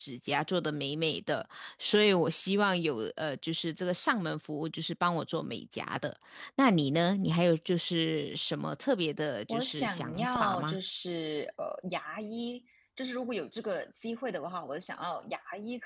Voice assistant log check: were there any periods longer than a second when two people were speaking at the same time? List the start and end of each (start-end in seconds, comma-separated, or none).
9.5-10.8